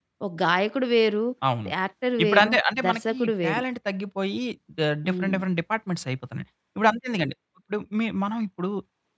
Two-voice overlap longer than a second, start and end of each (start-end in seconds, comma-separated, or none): 2.2-3.6